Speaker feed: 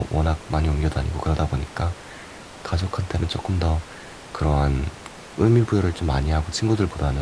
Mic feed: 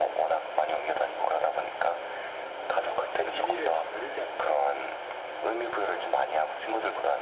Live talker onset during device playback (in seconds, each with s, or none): 2.7 s